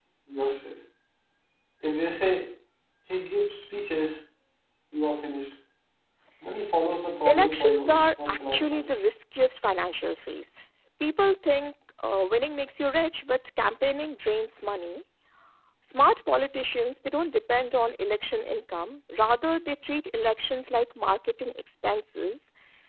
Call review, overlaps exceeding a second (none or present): present